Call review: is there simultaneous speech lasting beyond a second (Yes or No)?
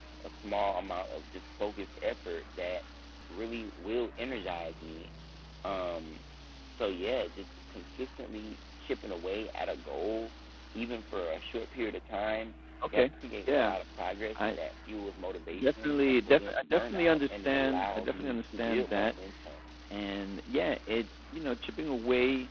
Yes